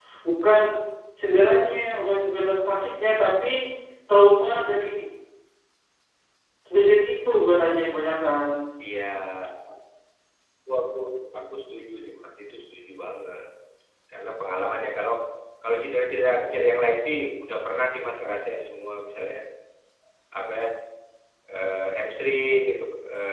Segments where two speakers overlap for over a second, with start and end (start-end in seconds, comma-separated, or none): none